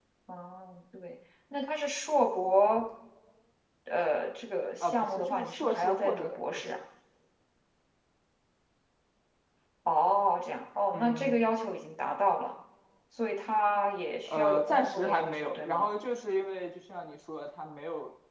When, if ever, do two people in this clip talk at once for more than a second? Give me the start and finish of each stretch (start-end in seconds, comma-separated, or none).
4.8-6.6, 14.3-15.9